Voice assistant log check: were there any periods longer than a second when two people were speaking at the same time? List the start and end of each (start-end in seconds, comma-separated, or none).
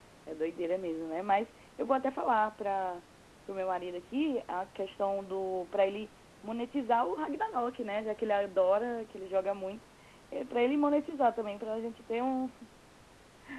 none